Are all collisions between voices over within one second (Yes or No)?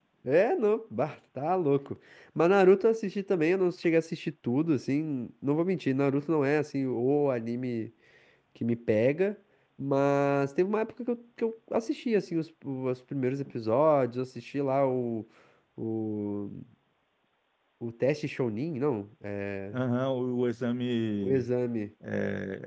Yes